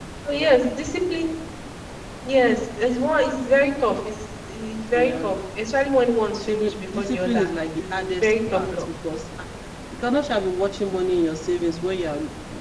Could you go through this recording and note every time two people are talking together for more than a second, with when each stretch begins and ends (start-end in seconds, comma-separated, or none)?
6.4-8.8